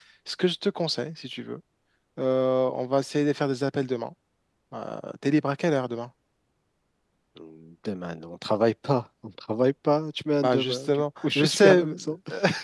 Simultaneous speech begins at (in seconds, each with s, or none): 10.4 s